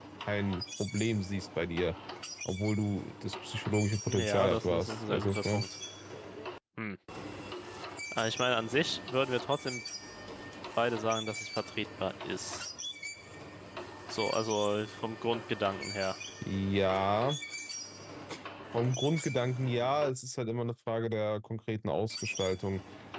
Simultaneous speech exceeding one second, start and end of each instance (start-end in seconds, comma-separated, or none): 4.1-5.6